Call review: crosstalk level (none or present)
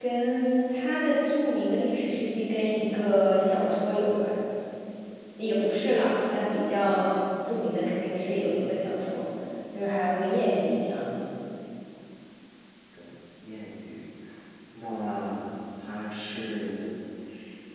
none